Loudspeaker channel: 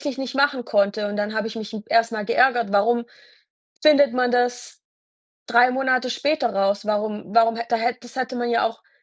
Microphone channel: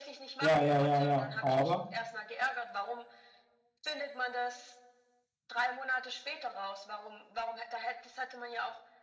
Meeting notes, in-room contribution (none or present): present